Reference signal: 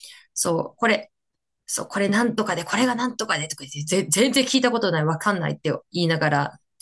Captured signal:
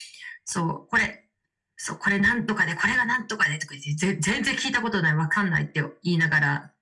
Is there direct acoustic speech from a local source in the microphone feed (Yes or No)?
No